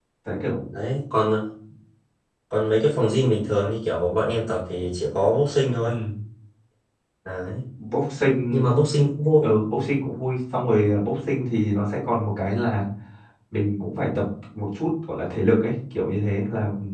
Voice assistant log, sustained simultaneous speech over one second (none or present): none